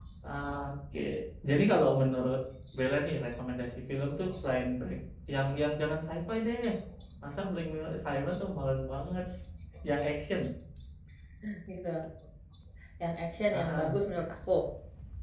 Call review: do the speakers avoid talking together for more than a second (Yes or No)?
Yes